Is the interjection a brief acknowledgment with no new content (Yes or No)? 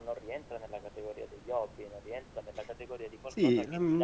No